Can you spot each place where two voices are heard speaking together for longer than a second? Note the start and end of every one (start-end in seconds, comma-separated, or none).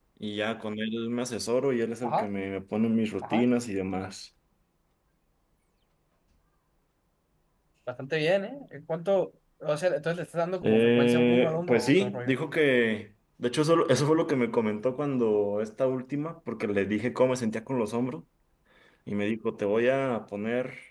10.6-12.3